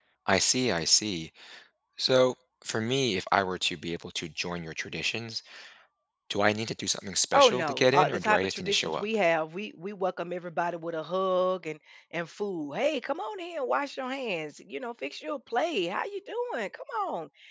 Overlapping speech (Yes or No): Yes